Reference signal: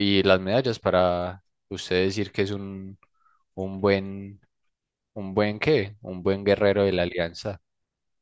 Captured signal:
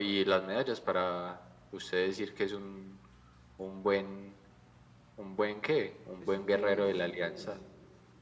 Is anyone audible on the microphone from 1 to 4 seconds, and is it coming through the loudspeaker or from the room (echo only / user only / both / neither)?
echo only